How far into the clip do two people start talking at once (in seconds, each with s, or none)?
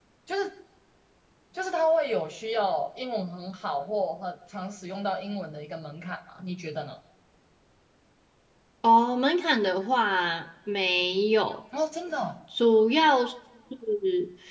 none